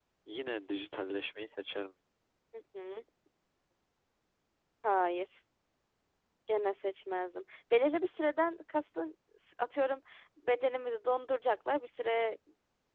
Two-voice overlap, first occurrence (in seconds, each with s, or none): none